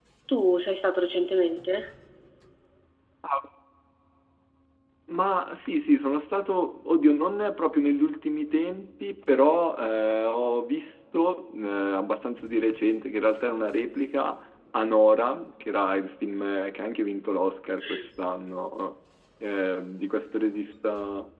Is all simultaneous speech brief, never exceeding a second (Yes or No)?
Yes